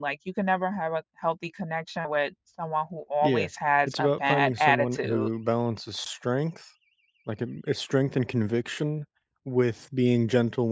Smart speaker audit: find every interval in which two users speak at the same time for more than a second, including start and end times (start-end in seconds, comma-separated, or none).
3.9-5.3